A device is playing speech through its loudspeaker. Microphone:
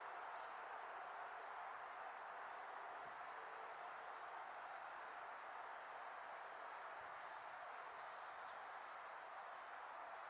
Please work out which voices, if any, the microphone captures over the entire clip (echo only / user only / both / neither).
neither